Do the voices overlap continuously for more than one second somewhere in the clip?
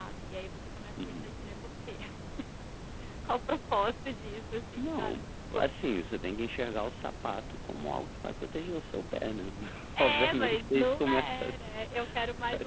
Yes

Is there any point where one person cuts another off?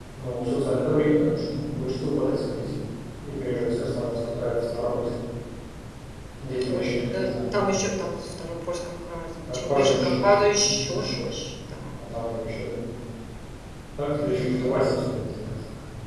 Yes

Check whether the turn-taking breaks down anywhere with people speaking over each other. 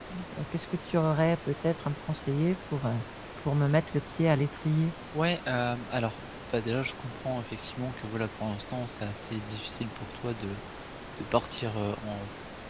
No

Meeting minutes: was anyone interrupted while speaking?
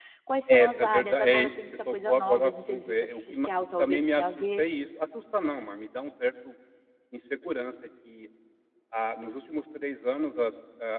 Yes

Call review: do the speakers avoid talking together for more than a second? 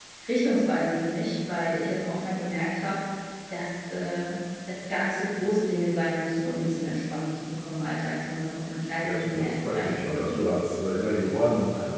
No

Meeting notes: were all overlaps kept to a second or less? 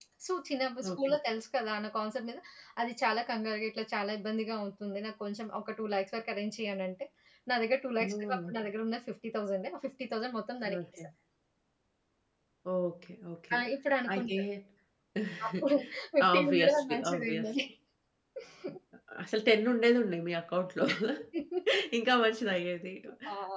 No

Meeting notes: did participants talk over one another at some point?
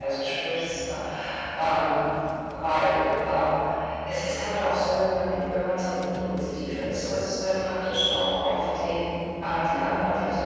No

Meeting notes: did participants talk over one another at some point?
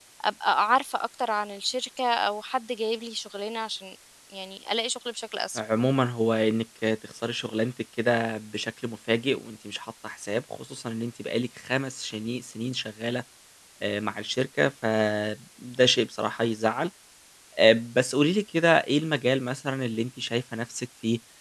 No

